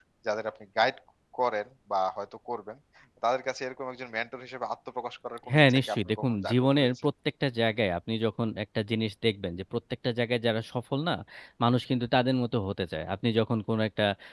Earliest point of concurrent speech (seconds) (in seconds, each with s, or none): 5.5 s